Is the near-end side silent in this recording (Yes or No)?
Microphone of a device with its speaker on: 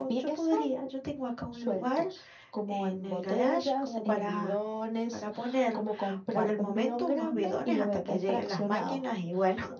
No